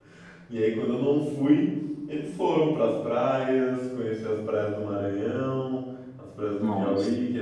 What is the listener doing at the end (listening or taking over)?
listening